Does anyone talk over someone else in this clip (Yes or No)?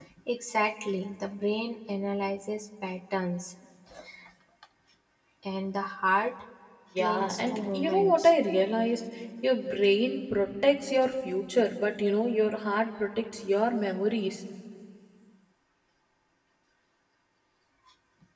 Yes